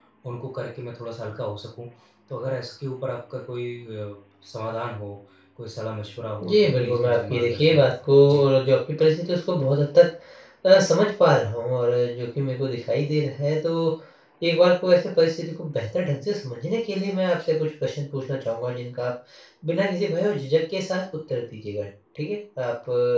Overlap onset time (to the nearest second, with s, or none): 6 s